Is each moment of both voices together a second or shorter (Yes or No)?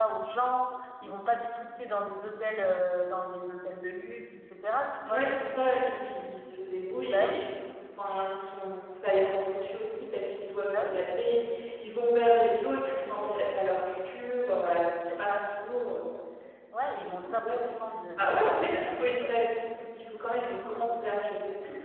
No